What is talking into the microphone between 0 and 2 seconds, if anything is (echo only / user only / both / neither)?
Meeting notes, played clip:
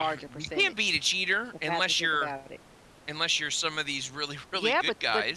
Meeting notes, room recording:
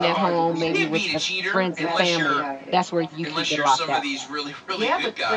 both